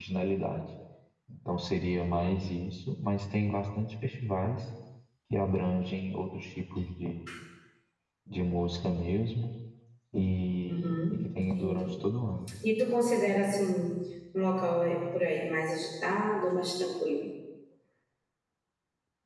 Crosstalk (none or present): present